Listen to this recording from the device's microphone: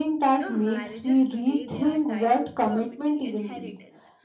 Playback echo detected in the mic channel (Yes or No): Yes